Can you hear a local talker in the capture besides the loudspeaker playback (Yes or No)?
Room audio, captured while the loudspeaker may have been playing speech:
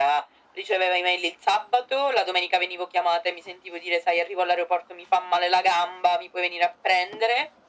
No